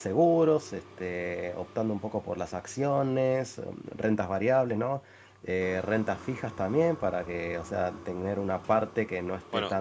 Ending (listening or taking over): taking over